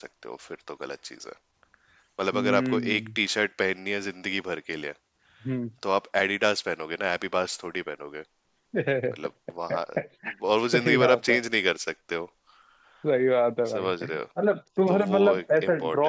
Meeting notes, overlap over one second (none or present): present